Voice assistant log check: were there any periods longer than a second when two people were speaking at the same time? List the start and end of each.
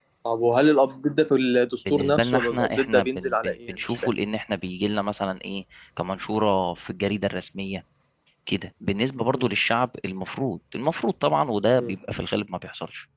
1.9-4.1

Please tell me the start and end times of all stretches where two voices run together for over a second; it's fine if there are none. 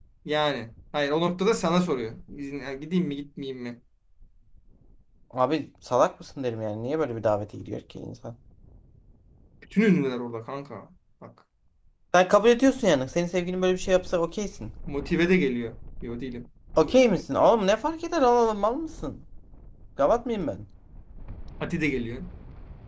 none

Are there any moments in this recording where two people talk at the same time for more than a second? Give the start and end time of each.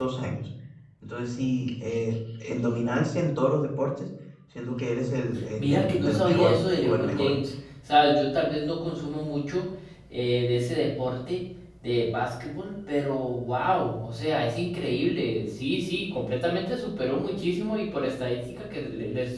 5.6-7.3

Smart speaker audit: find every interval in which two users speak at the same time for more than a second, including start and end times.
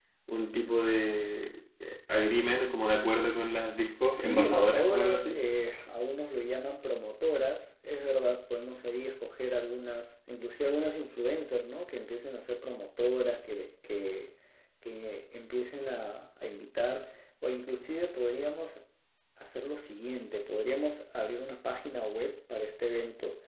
4.1-5.4

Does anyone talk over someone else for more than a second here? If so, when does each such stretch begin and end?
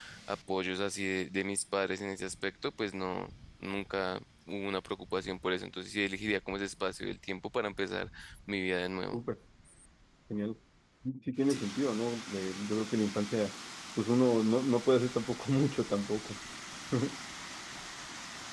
none

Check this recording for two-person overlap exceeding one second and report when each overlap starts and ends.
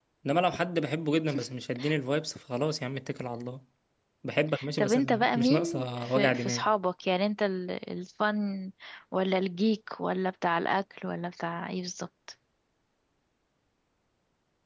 4.8-6.6

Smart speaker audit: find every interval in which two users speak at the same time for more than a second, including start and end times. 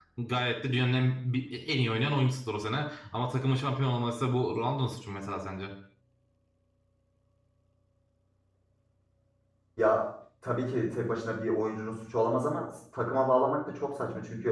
none

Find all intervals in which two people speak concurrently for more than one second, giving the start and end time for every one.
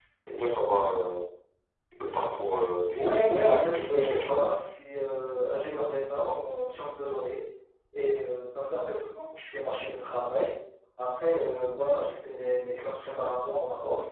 3.0-4.4

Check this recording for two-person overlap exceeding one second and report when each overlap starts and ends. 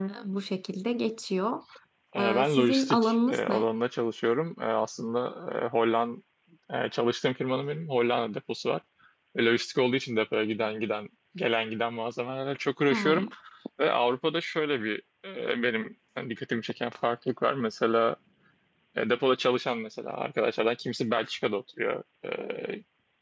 2.2-3.6

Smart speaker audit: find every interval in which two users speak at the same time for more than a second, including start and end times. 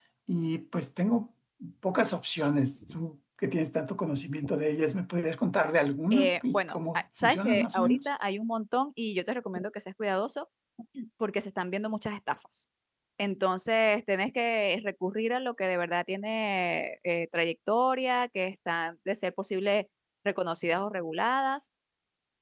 6.1-8.1

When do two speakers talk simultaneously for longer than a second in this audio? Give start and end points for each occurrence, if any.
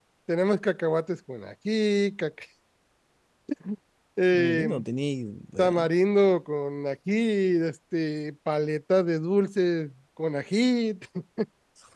none

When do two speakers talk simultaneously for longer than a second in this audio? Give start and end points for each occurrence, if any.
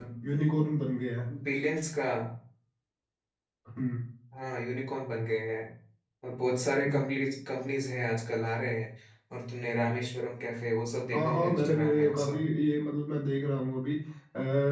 11.1-12.4

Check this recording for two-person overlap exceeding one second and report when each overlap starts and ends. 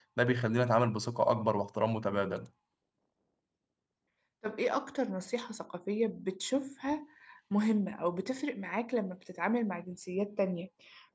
none

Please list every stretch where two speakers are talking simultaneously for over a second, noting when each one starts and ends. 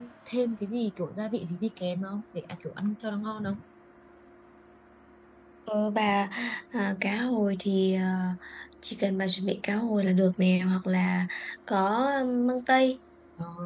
none

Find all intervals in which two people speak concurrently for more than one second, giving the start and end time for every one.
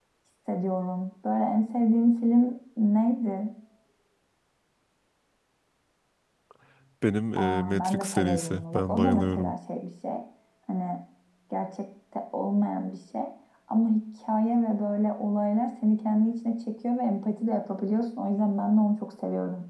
7.3-9.5

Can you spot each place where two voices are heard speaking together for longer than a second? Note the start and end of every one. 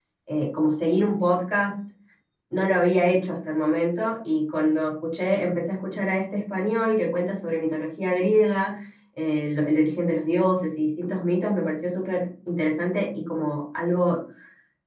none

